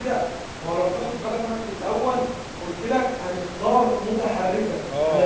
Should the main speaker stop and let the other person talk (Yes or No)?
Yes